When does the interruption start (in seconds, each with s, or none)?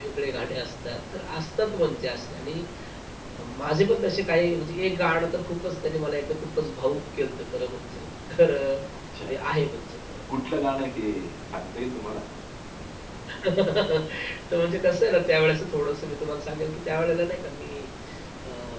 none